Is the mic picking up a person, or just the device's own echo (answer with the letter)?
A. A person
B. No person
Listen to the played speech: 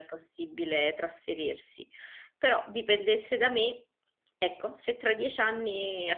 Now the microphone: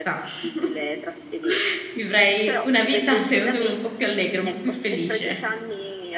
A